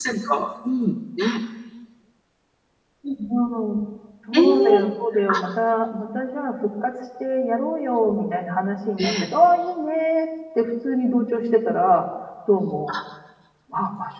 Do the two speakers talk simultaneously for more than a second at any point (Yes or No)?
No